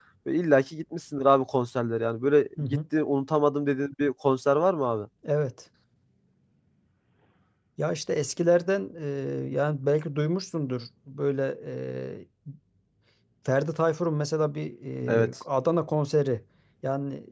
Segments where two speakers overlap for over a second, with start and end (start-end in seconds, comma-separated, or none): none